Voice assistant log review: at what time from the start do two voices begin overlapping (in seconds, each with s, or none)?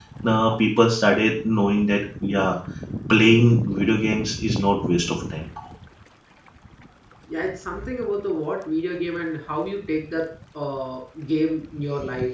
none